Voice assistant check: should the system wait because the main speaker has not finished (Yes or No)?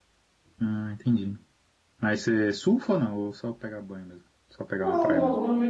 No